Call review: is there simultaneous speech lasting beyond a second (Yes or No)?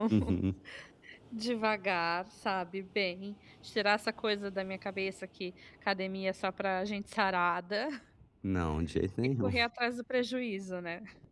No